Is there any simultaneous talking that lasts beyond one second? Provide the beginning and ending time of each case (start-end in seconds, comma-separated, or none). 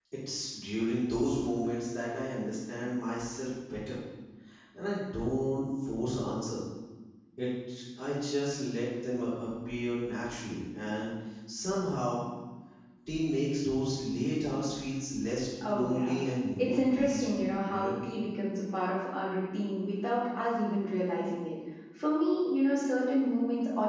16.6-18.1